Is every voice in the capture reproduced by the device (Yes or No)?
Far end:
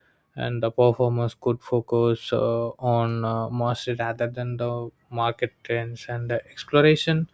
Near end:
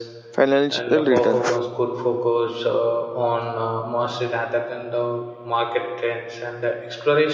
No